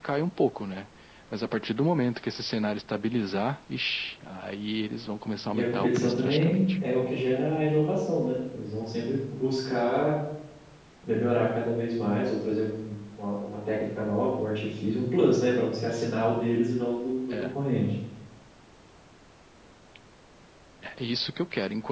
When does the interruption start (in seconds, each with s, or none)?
5.5 s